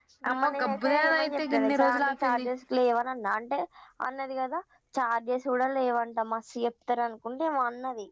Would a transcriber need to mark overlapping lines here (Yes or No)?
Yes